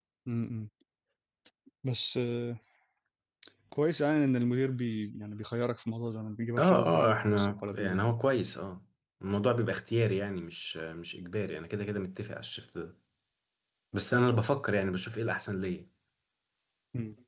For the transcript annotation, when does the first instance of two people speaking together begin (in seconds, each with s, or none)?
6.6 s